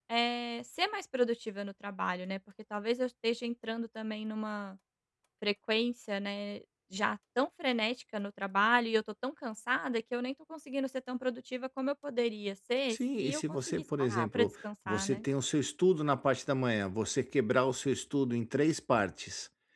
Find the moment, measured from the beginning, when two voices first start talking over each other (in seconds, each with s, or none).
12.9 s